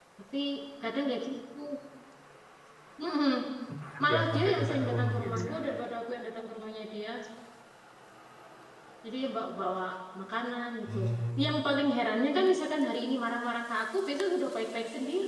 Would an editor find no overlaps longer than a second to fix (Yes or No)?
No